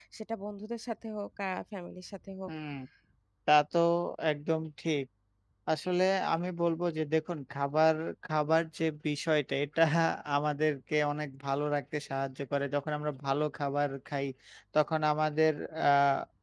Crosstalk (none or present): none